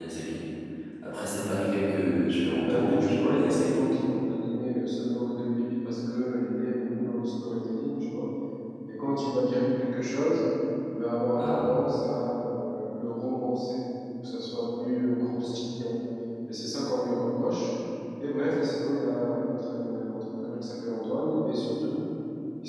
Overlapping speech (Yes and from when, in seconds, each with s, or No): Yes, from 2.6 s